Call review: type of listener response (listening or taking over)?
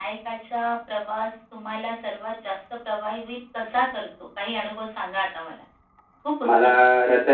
taking over